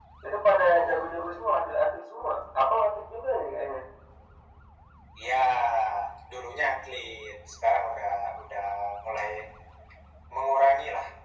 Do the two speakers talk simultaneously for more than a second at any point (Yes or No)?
No